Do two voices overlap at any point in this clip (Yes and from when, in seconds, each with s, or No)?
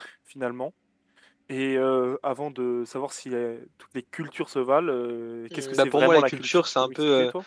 Yes, from 5.5 s